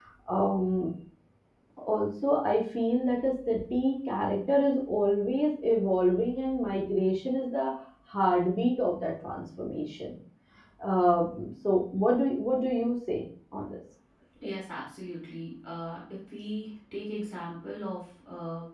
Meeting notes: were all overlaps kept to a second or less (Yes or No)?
Yes